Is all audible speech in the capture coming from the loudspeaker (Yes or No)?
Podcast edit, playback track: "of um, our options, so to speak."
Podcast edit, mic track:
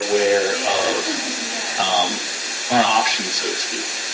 No